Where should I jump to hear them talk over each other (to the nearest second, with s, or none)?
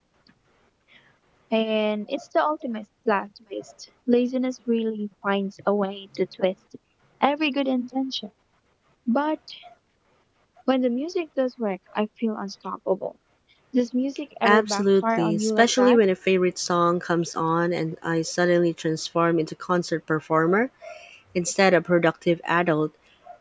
14 s